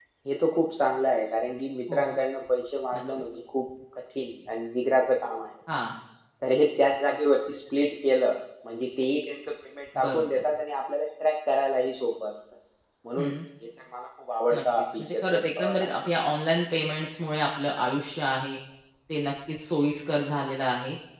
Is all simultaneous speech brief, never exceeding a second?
No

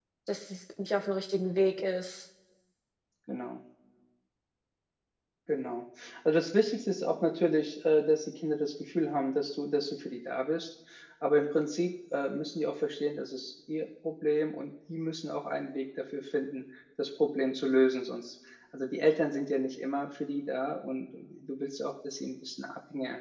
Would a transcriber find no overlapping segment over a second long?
Yes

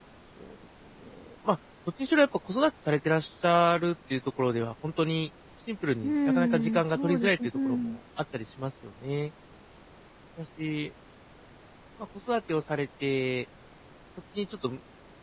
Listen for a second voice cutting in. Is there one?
Yes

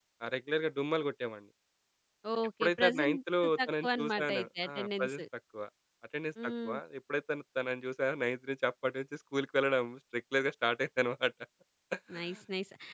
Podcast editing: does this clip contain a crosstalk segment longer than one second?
Yes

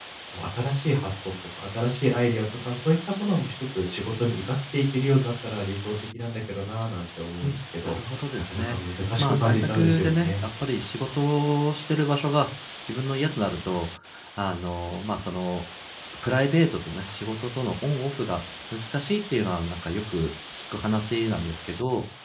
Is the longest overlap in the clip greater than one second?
Yes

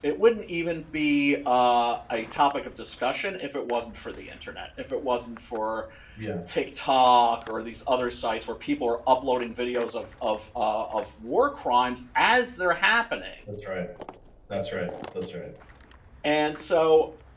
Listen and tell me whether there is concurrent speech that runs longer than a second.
No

